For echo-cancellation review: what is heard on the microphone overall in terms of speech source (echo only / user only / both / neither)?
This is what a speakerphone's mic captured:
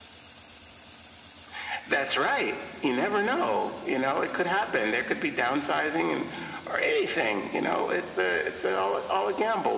echo only